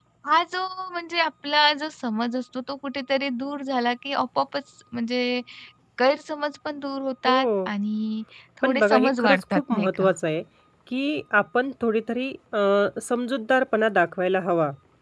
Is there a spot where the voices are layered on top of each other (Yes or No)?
Yes